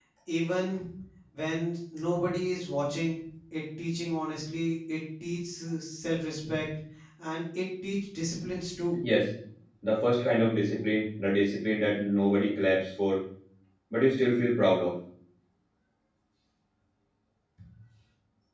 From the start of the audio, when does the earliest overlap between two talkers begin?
none

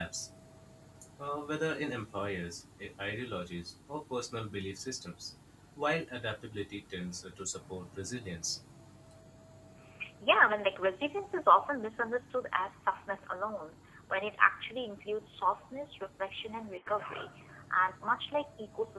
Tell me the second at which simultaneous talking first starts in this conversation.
none

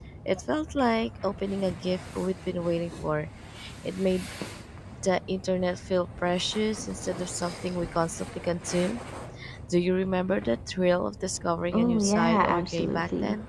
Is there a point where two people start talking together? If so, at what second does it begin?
11.7 s

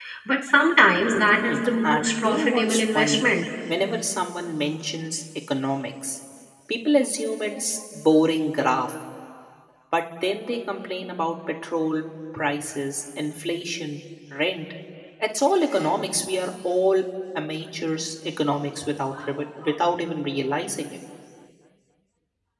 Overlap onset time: 1.4 s

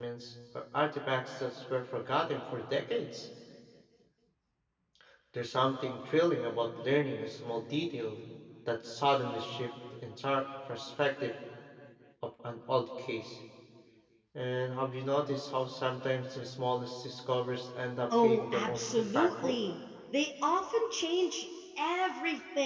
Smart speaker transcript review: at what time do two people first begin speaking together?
18.1 s

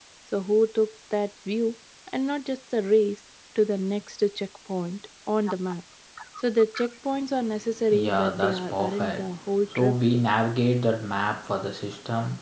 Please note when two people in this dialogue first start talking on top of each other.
7.9 s

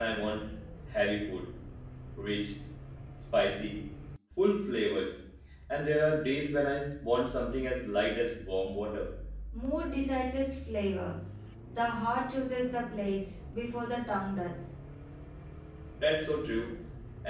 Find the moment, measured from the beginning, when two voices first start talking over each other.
none

